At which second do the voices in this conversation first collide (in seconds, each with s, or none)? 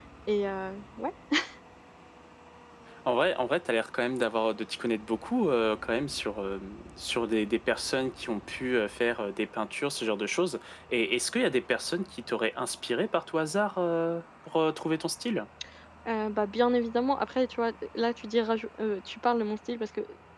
none